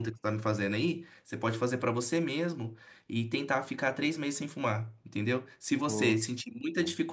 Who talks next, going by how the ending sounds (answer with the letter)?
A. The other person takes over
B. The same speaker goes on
B